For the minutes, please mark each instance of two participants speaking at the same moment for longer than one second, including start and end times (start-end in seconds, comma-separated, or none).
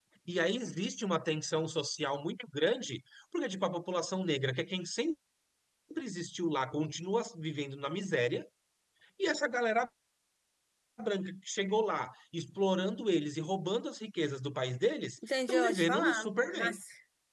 15.5-16.8